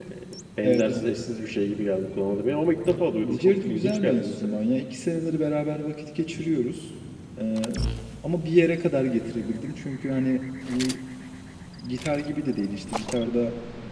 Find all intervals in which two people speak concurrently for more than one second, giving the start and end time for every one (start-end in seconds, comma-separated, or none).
3.3-4.6